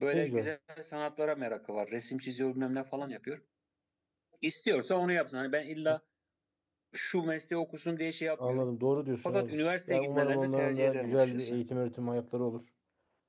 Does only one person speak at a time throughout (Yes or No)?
No